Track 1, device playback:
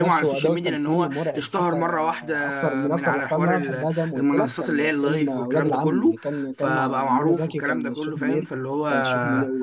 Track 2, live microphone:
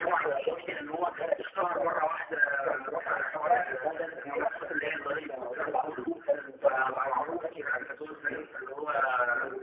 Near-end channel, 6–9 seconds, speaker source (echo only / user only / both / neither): echo only